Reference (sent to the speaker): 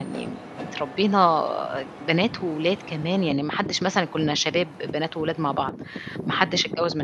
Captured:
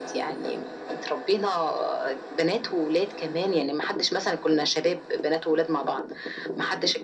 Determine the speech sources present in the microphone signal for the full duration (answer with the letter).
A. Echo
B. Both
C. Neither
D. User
A